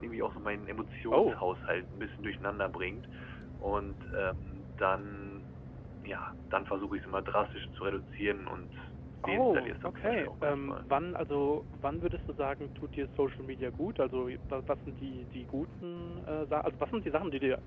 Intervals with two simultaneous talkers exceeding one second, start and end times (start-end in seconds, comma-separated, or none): 9.2-10.9